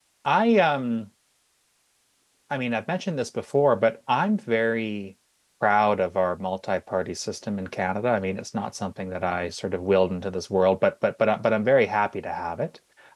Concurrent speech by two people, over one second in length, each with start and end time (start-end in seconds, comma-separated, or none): none